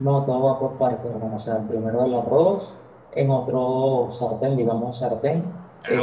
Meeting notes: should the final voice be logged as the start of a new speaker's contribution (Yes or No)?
No